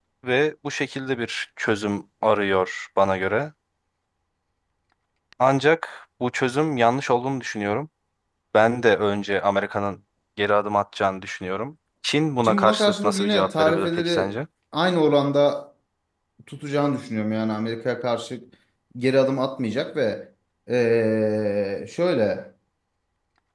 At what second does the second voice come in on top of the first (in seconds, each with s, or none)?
12.4 s